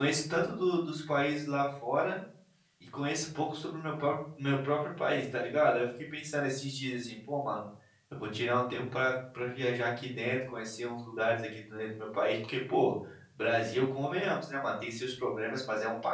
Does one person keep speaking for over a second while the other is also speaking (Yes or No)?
No